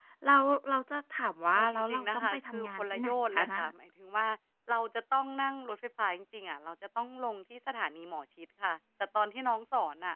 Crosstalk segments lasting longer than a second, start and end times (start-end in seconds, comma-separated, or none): 1.5-3.6